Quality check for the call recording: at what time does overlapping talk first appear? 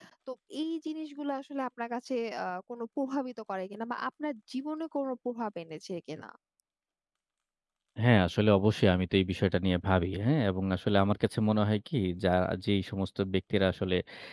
none

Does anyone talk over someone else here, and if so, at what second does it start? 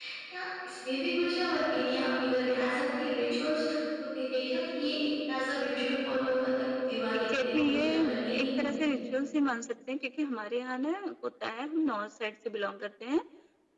7 s

